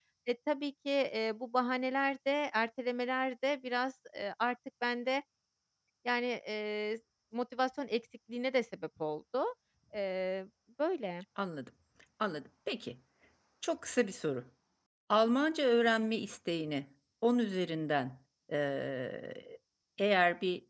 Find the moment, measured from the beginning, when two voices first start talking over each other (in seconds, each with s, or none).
none